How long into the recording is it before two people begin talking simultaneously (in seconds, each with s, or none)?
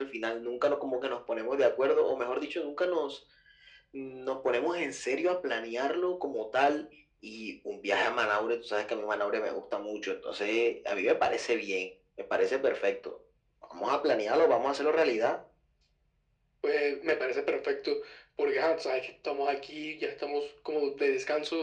none